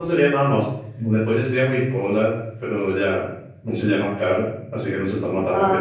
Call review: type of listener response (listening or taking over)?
taking over